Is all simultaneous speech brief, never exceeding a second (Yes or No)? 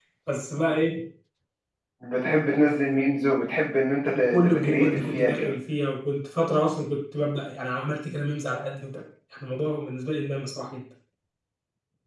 No